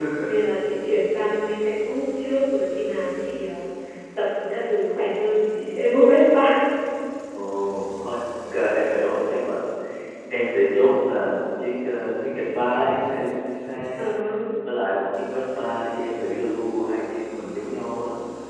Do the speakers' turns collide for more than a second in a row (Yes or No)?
No